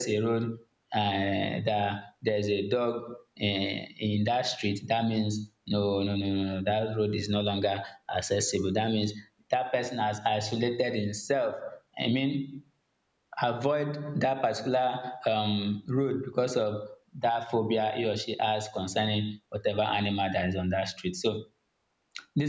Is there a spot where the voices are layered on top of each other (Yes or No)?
No